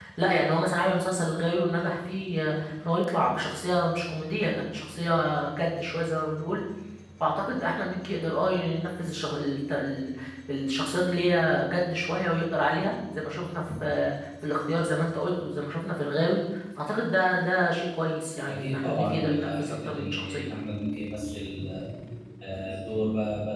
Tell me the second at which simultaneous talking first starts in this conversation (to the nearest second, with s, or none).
18 s